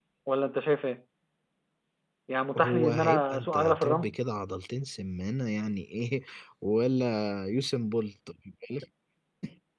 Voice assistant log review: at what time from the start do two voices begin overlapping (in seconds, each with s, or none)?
2.6 s